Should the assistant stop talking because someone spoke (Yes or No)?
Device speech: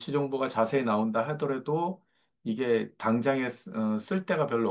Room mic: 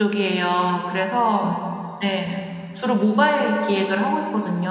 Yes